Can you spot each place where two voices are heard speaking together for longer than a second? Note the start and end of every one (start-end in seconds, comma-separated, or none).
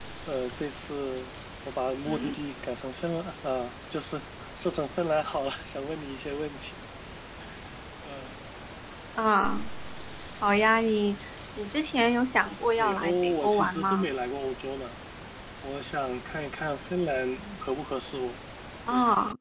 12.8-14.1